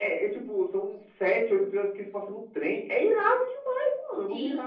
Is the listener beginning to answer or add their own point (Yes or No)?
Yes